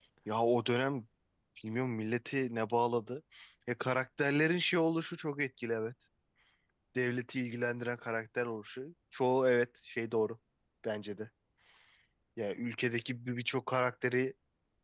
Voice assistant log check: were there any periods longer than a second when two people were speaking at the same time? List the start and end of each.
none

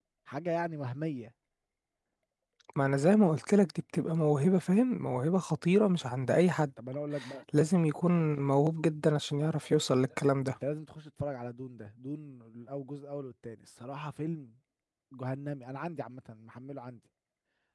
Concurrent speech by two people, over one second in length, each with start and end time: none

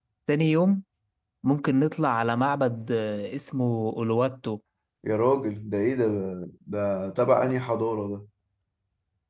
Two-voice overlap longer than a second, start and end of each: none

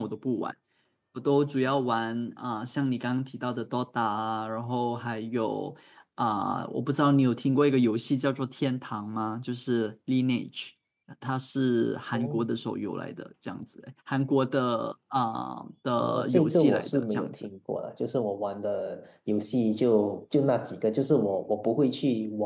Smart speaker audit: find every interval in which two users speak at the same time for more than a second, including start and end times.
16.0-17.5

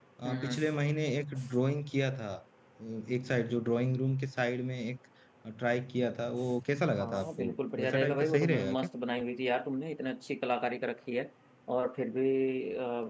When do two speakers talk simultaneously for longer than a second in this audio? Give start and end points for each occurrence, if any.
7.0-8.8

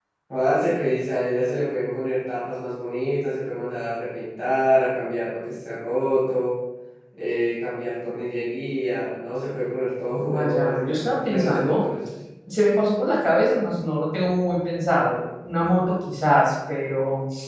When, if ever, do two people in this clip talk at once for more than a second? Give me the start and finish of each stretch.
10.2-11.8

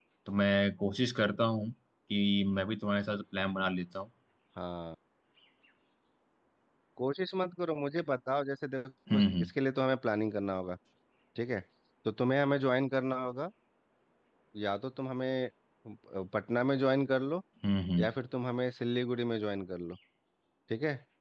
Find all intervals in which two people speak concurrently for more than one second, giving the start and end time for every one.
none

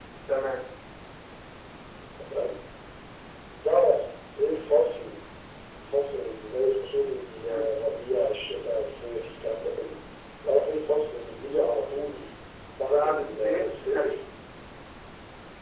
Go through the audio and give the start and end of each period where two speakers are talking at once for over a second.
12.9-14.2

